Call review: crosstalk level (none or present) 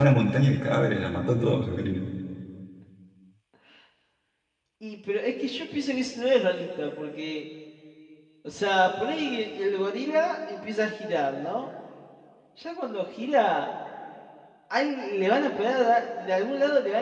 none